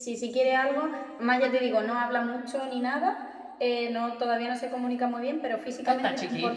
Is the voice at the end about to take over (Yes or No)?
No